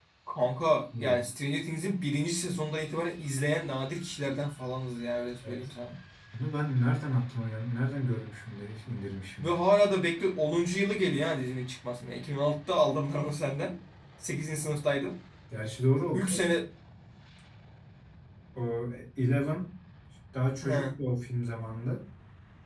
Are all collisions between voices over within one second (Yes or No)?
Yes